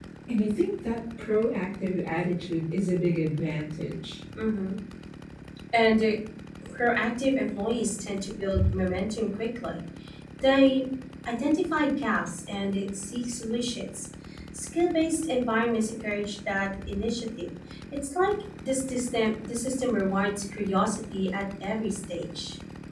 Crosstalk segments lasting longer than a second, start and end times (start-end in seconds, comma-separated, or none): none